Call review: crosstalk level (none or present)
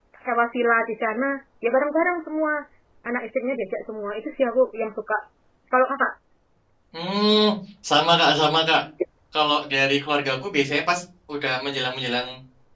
none